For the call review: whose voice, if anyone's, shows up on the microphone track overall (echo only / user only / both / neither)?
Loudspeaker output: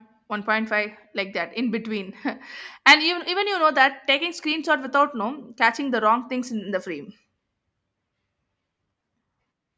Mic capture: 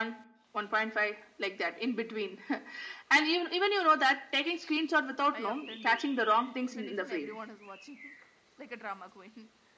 both